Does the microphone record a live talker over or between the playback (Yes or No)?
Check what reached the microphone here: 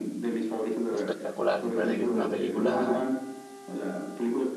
Yes